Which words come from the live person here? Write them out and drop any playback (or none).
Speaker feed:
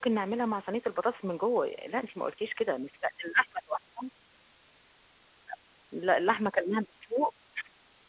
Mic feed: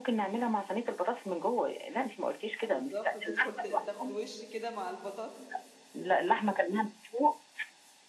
أ بالضبط، وتِدخل ت تاخد وِشّ كده مع البطاطس،